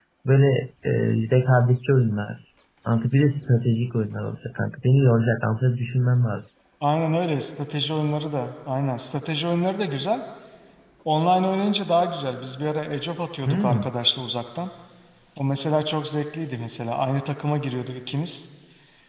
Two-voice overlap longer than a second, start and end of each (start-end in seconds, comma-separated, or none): none